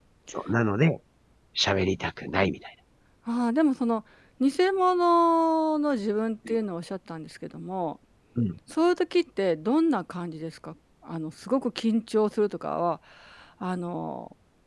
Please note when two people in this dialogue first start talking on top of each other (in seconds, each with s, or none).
none